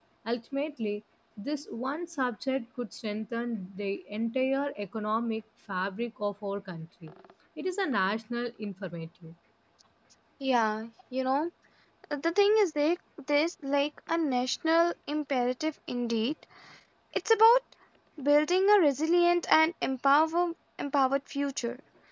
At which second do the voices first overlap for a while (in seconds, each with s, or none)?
none